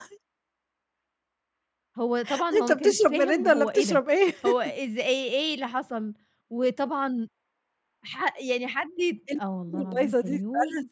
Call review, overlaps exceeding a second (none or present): present